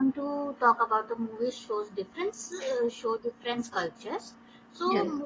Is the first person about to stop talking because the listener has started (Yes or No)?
No